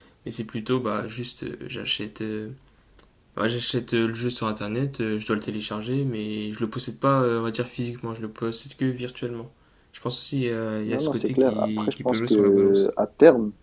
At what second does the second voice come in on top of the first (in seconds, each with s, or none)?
10.9 s